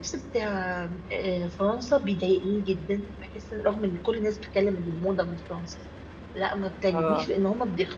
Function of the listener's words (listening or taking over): listening